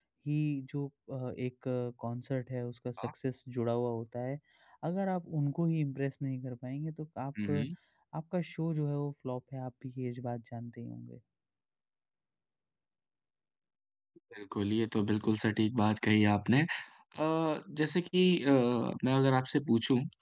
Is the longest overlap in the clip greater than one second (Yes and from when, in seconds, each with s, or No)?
No